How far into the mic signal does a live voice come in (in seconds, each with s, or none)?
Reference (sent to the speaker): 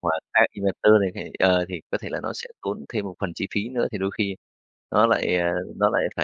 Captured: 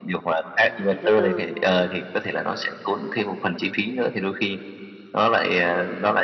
0.6 s